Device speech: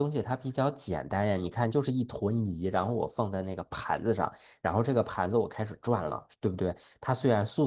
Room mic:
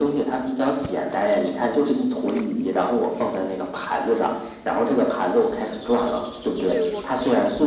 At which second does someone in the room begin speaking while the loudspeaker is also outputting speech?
6.6 s

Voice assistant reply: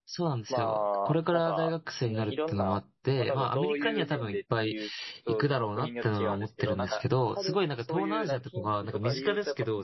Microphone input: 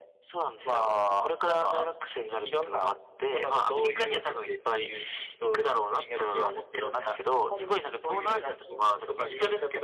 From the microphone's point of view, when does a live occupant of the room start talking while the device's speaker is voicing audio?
none

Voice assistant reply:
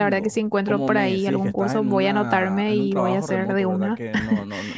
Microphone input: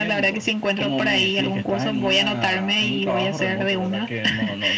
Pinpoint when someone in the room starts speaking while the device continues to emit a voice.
none

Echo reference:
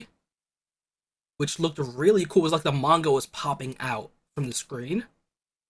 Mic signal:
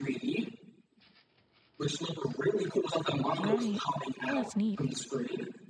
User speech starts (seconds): 3.4 s

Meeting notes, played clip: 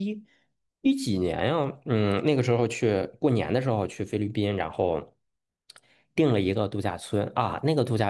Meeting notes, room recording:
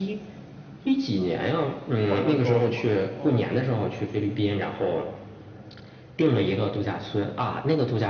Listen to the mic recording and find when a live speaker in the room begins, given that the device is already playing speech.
2.0 s

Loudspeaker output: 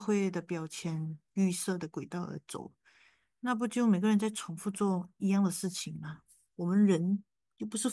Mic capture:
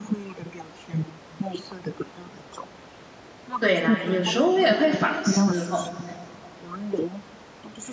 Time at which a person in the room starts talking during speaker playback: 3.6 s

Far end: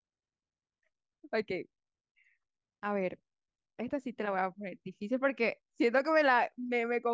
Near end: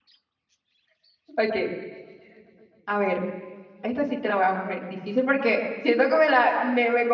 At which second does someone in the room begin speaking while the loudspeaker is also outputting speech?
none

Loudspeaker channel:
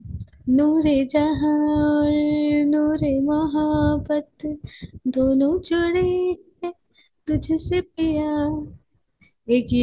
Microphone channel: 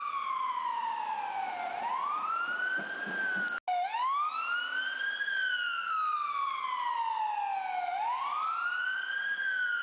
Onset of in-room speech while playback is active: none

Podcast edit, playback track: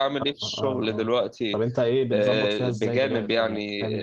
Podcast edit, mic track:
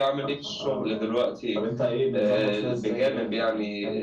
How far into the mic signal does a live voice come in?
none

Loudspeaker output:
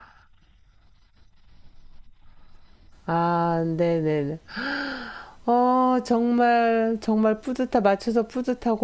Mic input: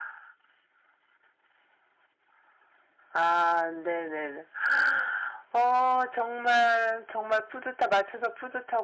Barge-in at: none

